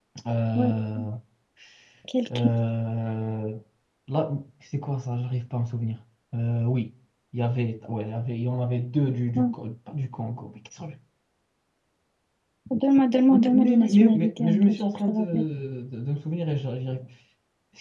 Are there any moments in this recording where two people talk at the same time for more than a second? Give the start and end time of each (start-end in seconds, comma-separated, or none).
13.3-15.2